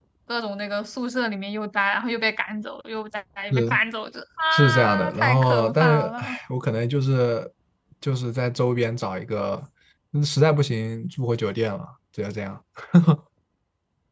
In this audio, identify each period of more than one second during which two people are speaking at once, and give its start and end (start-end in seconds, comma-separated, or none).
4.5-6.3